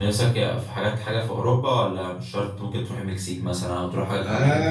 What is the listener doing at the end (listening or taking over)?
taking over